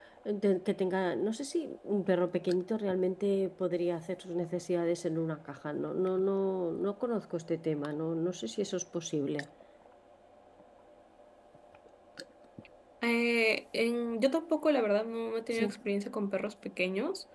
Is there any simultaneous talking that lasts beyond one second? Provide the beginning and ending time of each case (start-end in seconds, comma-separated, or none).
none